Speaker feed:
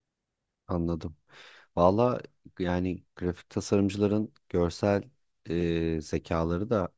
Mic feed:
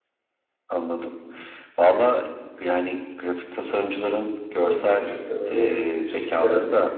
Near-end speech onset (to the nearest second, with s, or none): 5 s